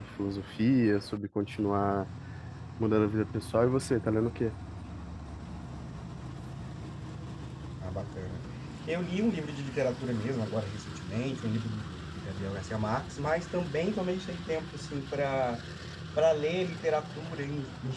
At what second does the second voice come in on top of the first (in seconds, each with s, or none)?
none